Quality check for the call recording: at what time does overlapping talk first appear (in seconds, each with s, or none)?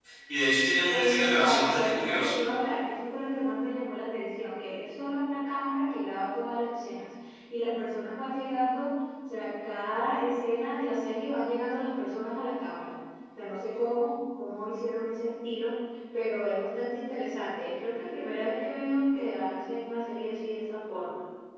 0.9 s